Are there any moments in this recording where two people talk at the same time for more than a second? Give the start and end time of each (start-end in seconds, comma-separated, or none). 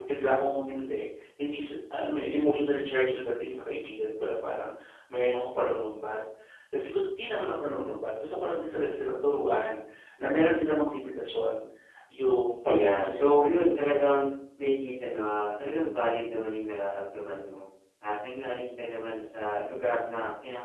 12.7-14.3